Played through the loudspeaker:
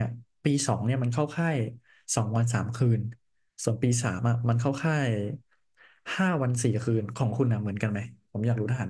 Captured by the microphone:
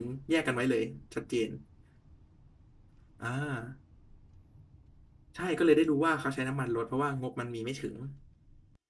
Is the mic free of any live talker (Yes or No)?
No